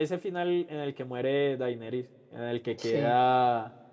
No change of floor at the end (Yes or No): Yes